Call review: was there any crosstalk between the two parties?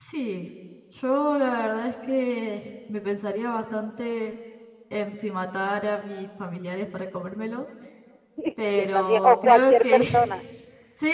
Yes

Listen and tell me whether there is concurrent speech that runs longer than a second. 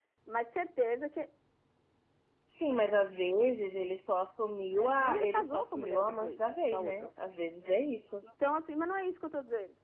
Yes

